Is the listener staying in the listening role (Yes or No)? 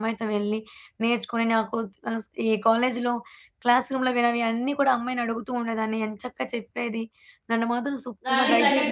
No